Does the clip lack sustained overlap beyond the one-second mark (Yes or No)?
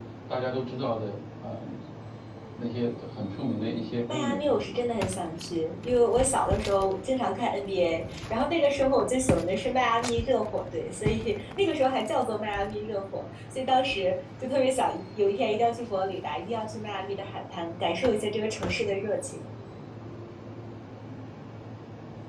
Yes